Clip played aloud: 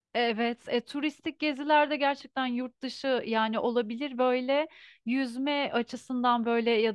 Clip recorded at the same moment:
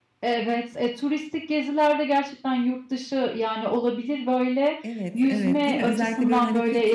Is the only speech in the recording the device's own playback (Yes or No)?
No